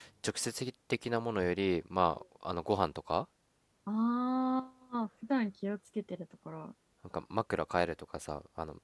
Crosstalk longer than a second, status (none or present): none